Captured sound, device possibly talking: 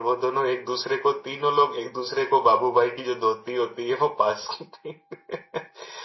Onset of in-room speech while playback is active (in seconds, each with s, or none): none